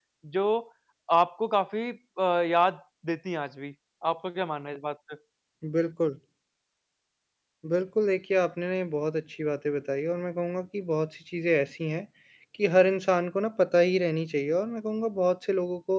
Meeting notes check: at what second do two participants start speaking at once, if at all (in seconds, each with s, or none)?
none